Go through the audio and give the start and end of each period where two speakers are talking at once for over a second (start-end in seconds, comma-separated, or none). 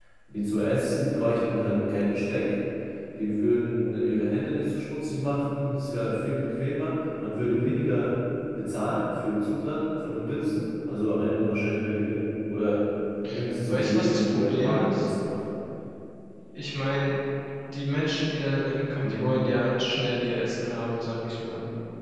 13.7-15.1